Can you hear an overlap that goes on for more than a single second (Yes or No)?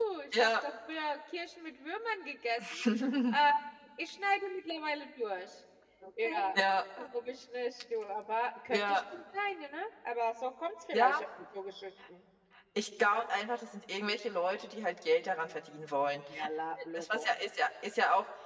No